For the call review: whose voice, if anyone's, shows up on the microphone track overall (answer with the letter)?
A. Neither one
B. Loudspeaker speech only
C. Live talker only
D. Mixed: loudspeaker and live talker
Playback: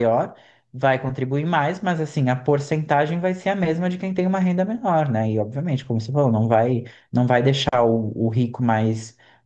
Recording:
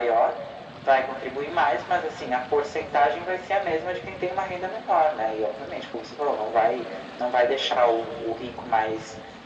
B